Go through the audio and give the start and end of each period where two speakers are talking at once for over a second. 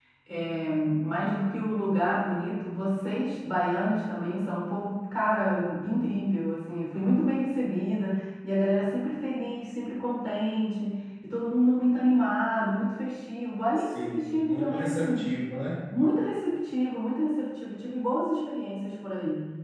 14.0-15.2

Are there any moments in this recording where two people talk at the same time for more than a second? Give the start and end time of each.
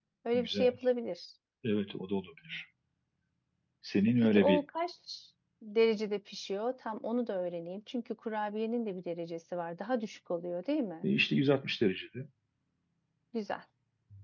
none

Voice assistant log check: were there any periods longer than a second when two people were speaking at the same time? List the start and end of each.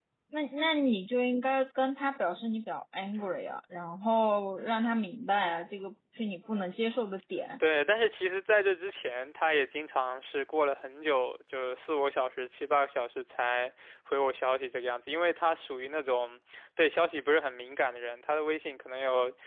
none

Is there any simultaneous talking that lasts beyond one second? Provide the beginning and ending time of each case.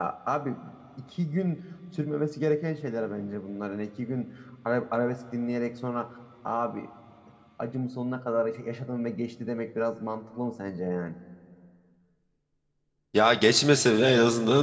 none

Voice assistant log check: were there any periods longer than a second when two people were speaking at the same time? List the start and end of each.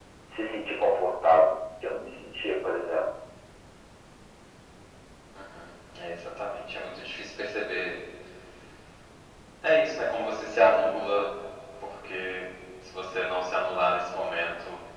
none

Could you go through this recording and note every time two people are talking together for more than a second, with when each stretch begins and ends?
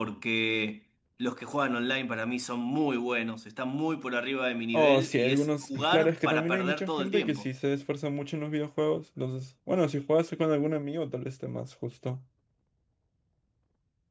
4.7-7.5

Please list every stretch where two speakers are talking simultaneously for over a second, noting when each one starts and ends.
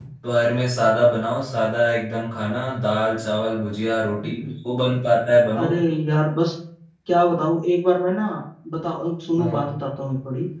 none

